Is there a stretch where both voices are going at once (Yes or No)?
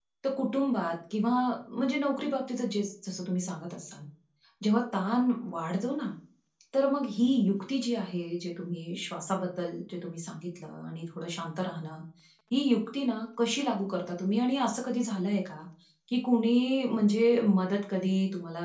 No